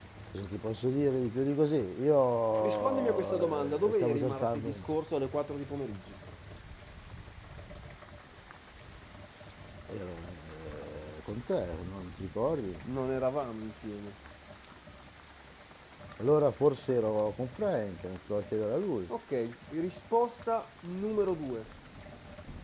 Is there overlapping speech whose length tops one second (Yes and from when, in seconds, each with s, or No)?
Yes, from 2.6 s